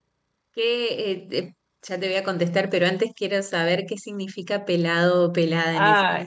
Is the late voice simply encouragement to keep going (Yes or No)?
No